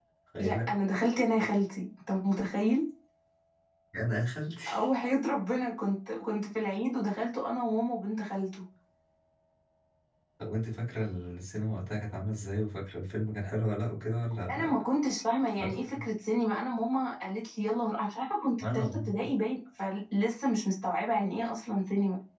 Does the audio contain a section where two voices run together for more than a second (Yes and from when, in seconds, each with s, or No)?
No